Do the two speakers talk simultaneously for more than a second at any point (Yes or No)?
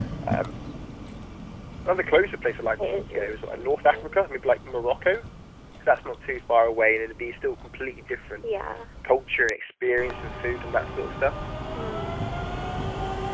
Yes